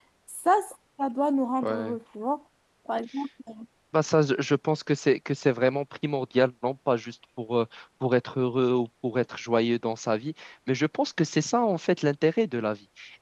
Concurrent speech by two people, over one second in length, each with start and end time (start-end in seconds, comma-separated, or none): none